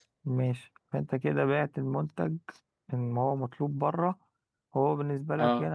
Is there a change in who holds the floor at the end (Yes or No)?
No